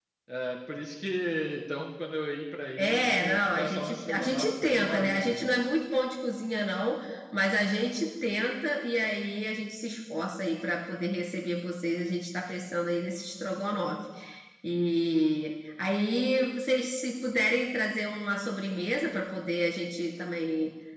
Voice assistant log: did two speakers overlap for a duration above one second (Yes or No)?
Yes